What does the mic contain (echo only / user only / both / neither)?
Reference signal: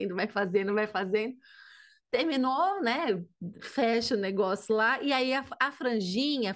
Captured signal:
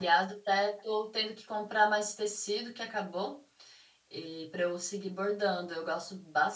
user only